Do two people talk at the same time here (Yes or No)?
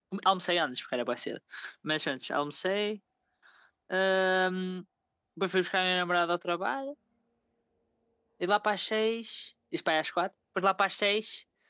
No